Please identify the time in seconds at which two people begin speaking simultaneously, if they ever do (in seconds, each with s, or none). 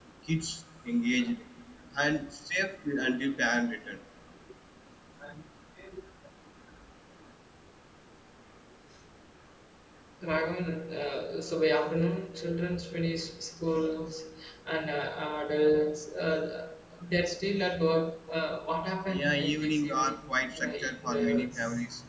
19.1 s